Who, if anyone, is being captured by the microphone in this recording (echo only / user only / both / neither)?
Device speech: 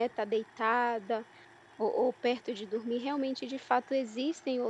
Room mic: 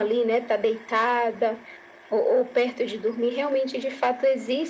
echo only